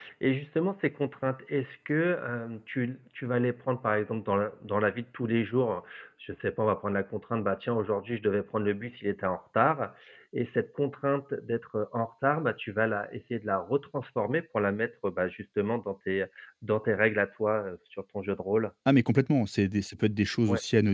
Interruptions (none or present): none